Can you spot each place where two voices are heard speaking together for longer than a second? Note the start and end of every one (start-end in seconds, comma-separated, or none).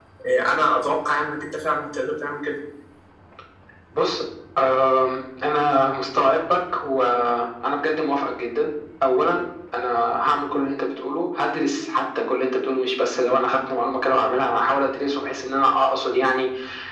none